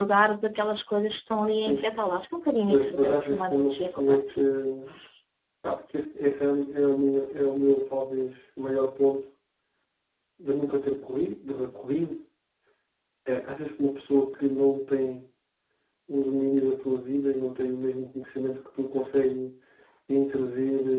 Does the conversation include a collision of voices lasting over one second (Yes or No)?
Yes